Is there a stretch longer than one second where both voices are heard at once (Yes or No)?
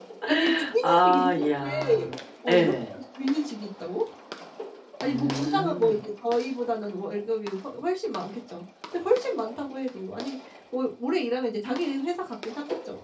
Yes